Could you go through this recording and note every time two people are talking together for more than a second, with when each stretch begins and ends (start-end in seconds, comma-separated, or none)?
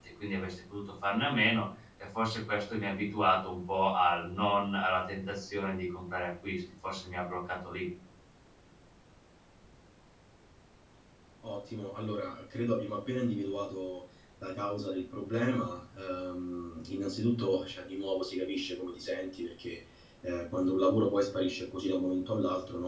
none